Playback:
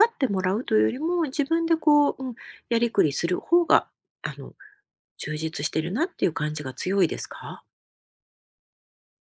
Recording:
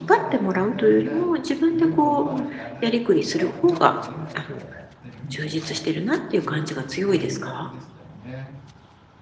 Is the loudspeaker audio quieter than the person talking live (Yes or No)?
No